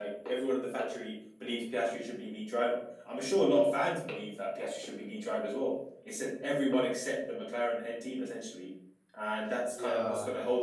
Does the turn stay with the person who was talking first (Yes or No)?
Yes